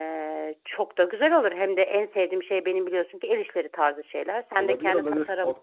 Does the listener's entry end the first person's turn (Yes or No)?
Yes